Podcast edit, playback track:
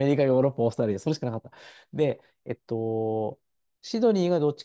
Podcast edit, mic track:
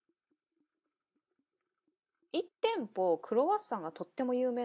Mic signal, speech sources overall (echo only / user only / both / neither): user only